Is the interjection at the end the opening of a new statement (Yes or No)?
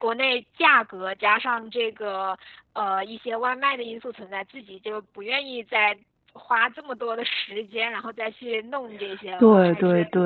Yes